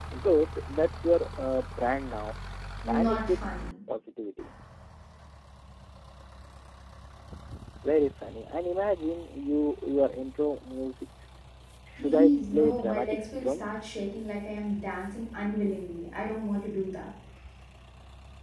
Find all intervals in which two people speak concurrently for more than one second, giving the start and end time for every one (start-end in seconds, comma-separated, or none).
12.0-13.6